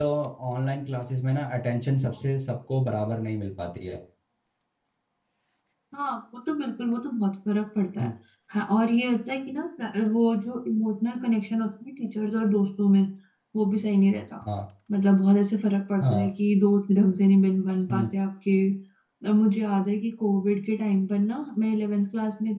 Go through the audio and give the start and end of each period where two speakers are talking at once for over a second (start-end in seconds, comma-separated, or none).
none